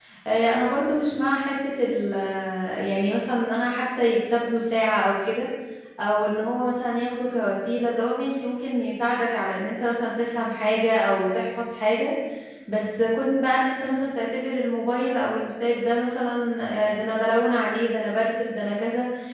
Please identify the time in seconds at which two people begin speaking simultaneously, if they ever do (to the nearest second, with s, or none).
none